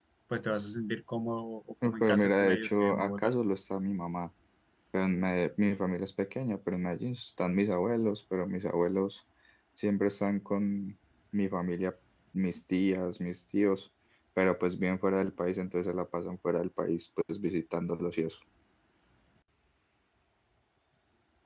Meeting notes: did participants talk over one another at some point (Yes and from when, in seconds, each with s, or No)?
Yes, from 1.8 s